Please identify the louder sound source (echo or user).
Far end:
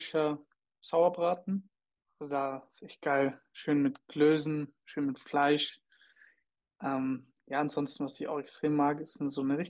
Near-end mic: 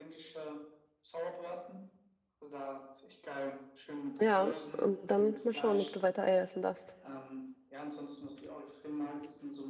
user